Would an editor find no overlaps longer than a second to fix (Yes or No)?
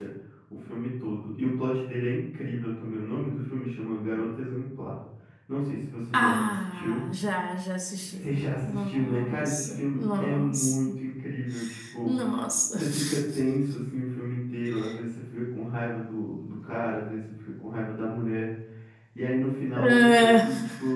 No